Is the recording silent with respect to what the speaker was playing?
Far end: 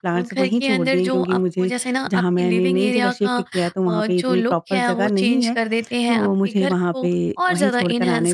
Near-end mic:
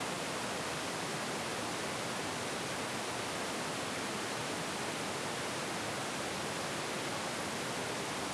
Yes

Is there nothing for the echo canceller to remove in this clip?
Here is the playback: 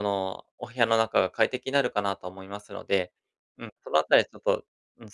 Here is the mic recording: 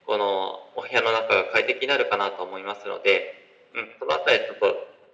No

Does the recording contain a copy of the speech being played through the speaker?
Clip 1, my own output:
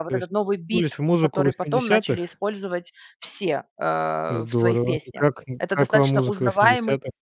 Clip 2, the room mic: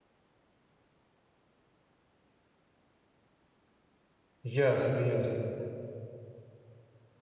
No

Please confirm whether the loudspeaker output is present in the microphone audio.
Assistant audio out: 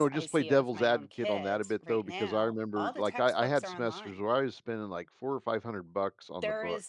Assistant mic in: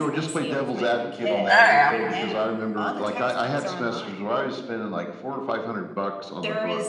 Yes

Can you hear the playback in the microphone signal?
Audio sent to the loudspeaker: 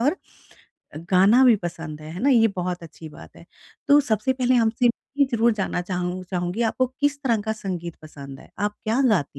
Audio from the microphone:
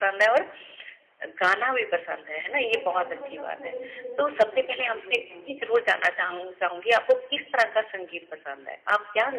Yes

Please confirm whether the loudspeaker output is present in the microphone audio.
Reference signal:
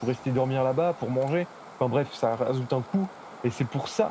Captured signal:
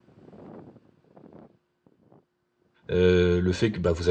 No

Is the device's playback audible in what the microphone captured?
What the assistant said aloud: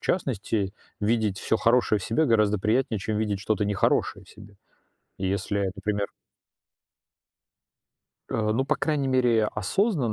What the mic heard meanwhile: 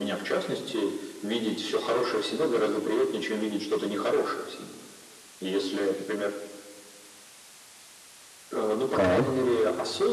Yes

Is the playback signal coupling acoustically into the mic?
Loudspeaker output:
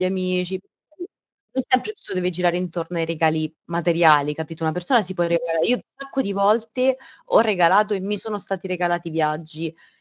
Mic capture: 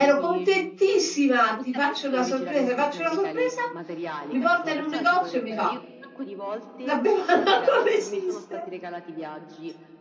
Yes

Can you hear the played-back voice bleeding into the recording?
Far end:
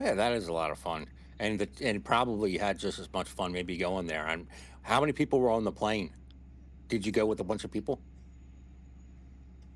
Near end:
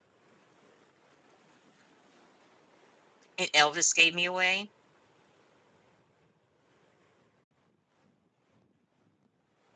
No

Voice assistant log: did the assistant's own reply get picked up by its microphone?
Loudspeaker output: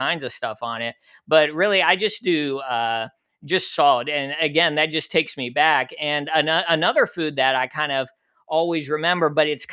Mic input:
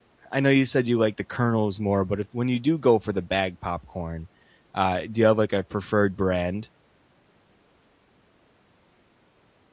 No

